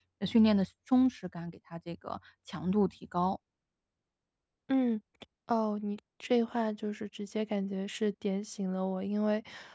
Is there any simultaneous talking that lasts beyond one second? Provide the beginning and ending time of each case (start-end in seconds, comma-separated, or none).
none